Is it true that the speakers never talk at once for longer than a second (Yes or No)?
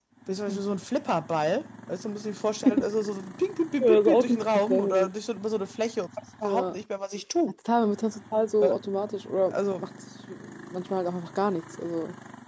No